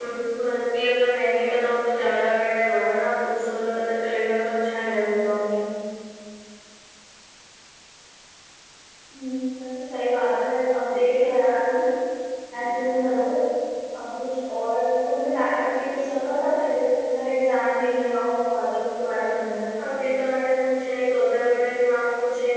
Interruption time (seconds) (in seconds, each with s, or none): none